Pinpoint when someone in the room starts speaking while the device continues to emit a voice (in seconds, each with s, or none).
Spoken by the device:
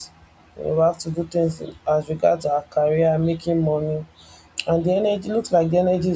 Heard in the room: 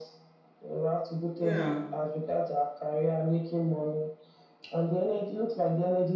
1.3 s